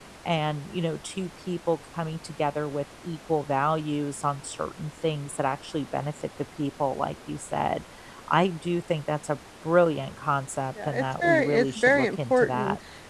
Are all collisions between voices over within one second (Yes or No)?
No